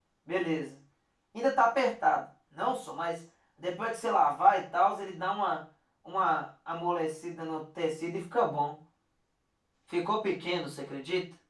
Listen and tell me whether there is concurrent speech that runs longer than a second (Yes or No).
No